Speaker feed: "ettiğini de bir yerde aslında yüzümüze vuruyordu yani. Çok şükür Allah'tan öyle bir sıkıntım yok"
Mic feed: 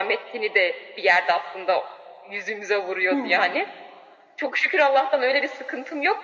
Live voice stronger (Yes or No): No